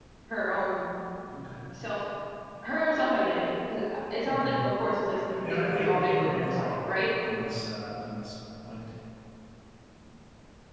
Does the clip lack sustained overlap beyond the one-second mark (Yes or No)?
No